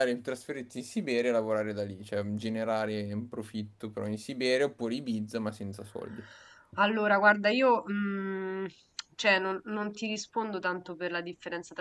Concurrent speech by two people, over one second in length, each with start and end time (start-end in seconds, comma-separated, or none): none